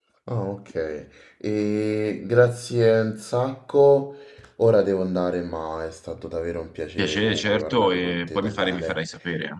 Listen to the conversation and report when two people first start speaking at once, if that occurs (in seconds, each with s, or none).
7.0 s